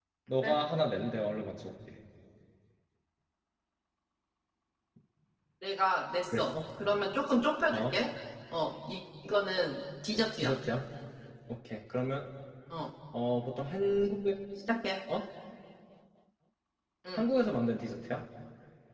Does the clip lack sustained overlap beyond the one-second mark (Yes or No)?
Yes